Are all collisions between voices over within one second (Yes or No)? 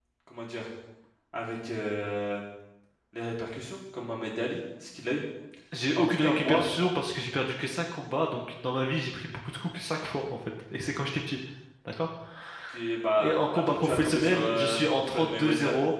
No